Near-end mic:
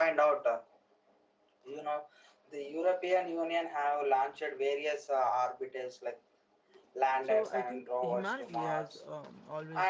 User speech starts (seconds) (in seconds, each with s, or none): 7.2 s